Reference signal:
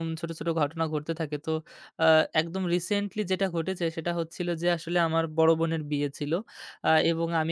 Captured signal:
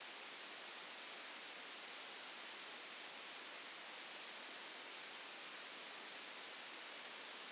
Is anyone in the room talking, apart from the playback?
No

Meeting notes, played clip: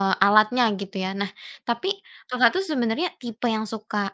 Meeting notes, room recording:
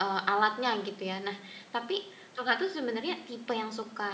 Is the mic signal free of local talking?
Yes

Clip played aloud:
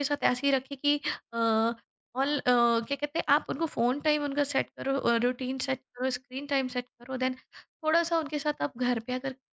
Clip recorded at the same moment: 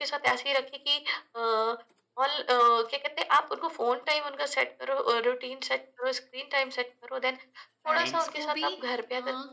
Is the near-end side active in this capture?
Yes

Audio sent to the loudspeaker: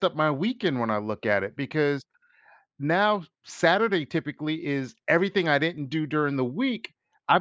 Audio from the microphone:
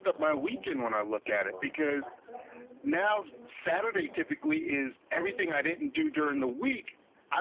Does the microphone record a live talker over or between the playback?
Yes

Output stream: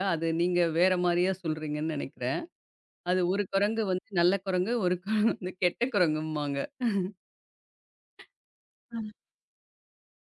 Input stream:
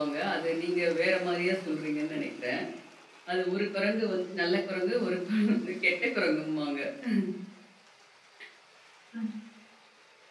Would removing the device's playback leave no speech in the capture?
Yes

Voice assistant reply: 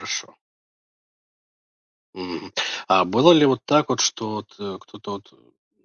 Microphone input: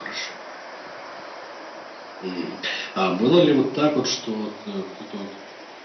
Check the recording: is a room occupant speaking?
No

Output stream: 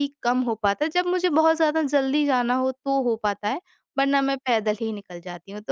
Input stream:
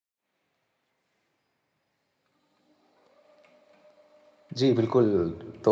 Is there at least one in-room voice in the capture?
Yes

